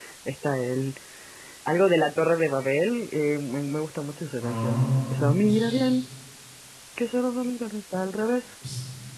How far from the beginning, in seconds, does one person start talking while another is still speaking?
4.4 s

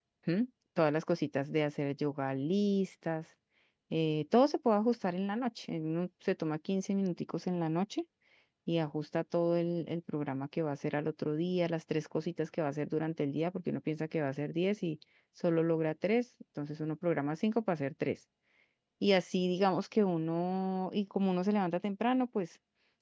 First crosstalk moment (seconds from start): none

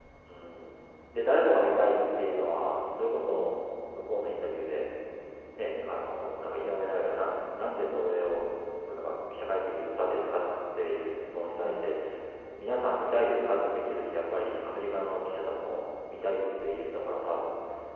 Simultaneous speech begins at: none

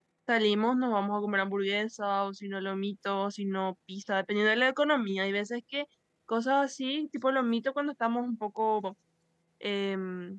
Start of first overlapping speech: none

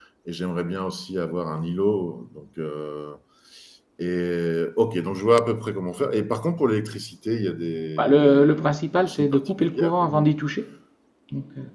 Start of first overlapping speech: 8.0 s

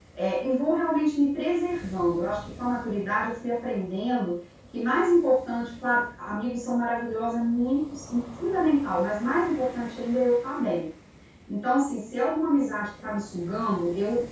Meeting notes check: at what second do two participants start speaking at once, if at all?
none

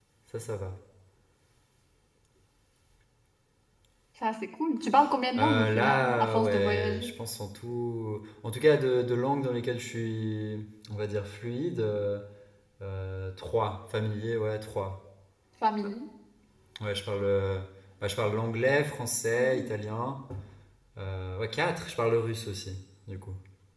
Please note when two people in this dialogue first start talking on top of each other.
5.4 s

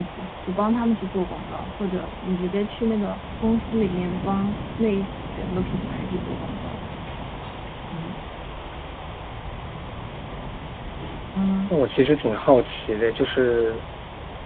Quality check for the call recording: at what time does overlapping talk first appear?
none

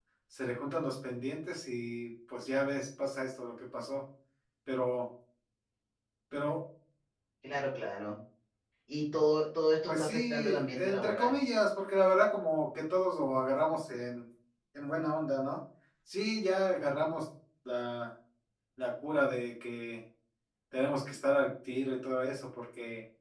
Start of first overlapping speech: 9.9 s

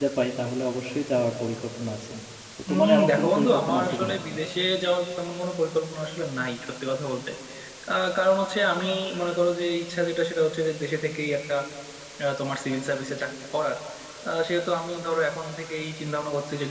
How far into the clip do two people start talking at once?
2.7 s

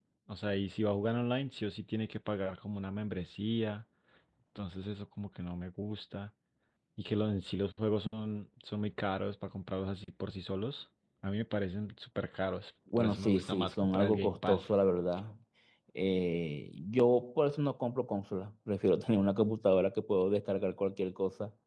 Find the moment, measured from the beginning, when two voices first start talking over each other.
12.9 s

